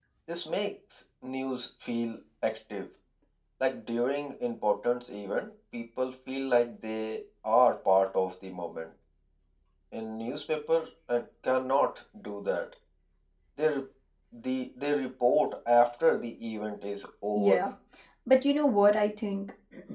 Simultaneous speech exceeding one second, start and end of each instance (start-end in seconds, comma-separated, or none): none